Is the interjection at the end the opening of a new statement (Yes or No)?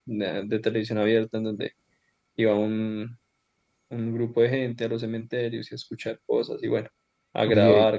Yes